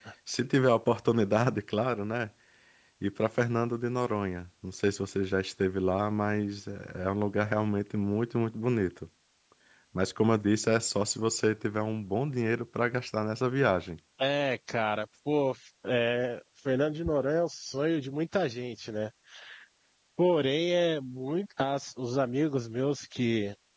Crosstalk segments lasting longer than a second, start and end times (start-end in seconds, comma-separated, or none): none